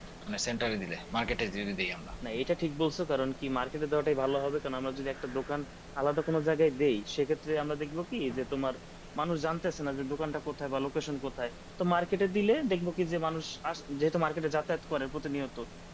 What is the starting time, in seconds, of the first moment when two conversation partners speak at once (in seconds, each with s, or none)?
none